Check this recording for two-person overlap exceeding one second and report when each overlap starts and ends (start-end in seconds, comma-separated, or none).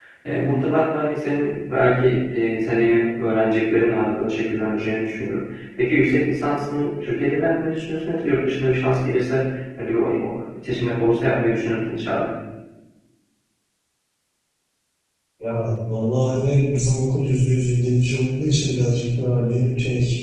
none